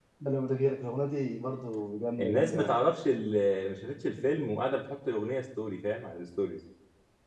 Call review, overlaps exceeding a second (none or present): none